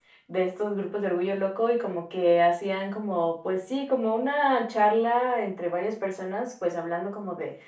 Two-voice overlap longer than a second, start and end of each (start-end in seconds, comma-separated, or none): none